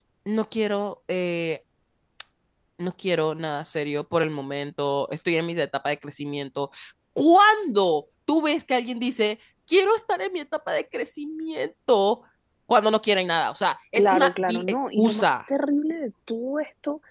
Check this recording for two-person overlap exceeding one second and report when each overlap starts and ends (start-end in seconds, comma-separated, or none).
13.9-15.3